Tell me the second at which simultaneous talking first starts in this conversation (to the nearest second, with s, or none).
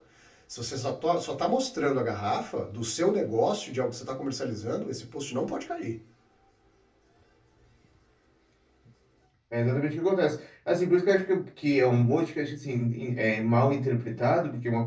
none